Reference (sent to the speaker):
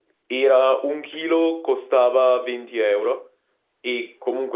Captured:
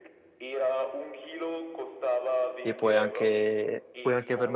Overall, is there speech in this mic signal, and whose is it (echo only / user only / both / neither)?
both